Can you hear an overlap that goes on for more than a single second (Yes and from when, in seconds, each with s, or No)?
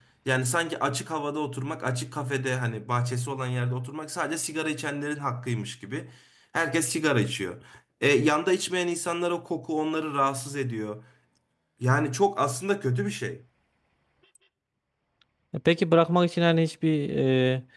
No